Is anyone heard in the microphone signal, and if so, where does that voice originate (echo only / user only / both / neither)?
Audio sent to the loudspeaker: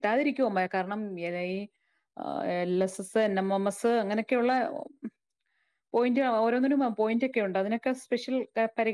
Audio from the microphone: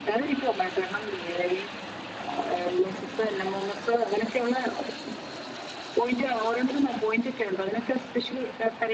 echo only